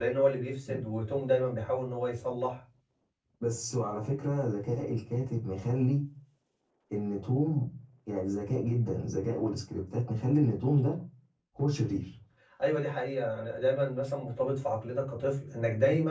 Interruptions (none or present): none